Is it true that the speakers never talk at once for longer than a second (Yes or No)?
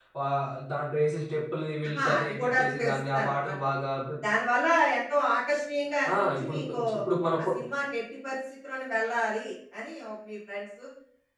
No